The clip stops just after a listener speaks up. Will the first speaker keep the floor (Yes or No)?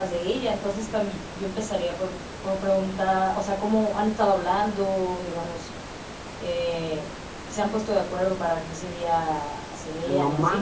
No